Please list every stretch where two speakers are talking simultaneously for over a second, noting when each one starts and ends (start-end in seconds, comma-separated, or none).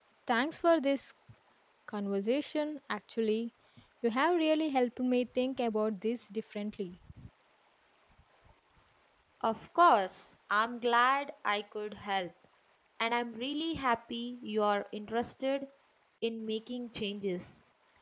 none